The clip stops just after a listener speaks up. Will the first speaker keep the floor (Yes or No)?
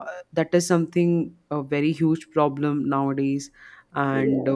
Yes